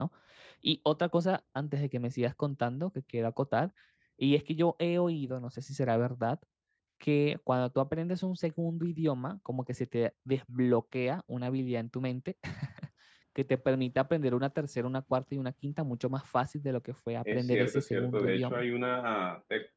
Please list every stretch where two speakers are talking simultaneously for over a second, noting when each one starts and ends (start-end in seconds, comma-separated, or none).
17.3-18.6